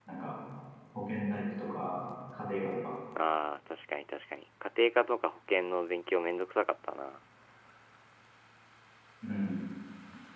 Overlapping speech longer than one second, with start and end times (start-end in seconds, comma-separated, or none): none